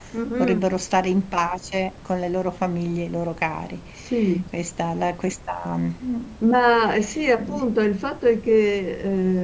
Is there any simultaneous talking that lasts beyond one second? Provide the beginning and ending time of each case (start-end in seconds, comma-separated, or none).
none